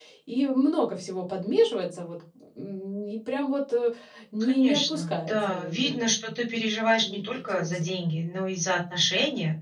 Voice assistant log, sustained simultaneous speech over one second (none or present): present